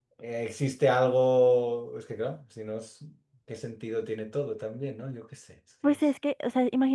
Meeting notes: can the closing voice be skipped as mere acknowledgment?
No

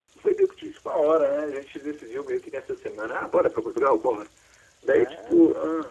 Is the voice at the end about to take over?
No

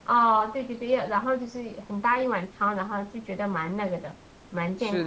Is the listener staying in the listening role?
No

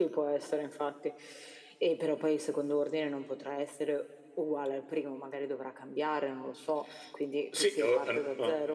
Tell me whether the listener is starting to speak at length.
Yes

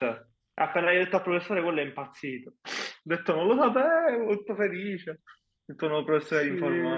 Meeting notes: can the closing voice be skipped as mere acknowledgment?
No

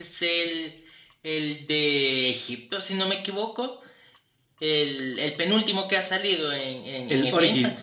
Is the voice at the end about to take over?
No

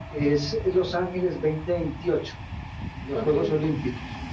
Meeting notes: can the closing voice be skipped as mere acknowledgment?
Yes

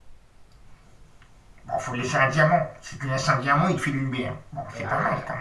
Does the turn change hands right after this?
Yes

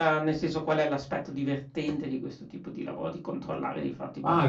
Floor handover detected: Yes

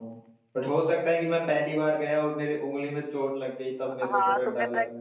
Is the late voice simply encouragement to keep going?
No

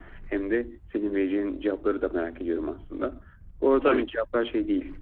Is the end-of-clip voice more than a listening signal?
No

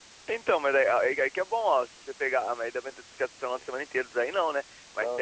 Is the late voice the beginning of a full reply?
No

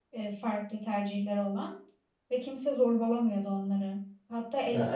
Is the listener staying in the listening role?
Yes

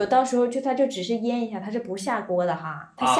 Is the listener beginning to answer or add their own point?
Yes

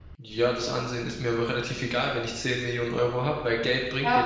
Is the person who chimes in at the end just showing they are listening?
No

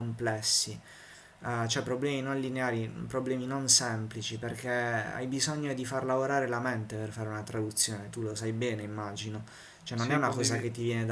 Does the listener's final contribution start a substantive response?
No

